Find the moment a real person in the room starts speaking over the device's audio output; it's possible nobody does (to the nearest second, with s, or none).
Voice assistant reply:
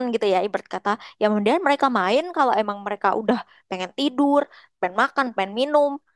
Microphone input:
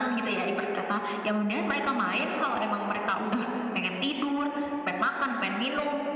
none